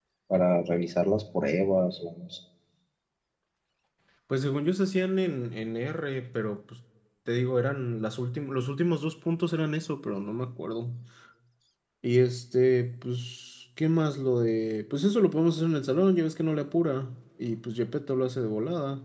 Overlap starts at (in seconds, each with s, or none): none